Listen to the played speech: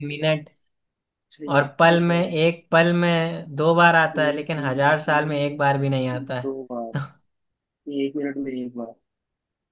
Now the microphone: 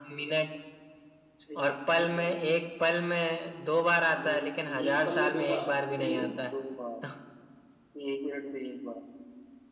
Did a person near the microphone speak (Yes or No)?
Yes